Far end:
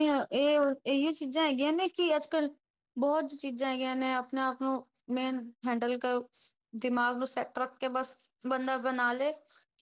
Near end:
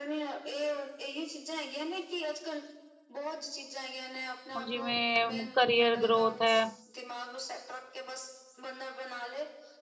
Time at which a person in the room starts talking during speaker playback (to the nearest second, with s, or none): 5 s